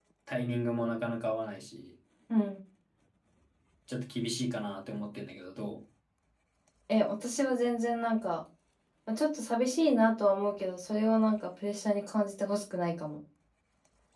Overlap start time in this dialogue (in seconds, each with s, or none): none